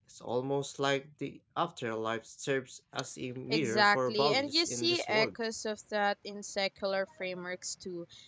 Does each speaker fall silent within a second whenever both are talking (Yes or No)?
No